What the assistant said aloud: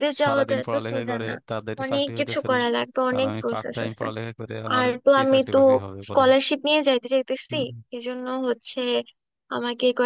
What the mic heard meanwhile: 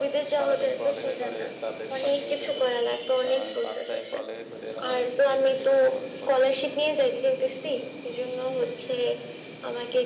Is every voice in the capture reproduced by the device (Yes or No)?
Yes